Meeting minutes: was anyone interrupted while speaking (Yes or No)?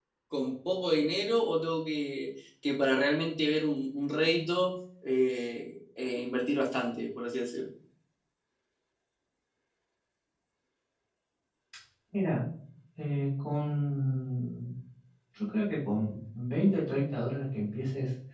No